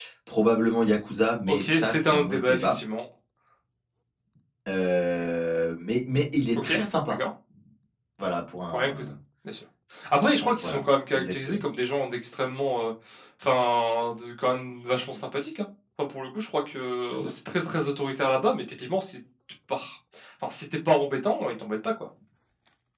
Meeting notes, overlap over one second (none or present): present